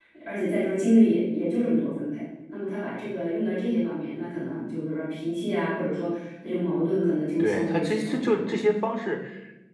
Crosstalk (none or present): present